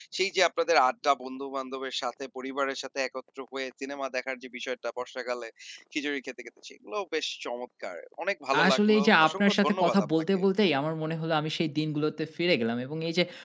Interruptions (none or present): present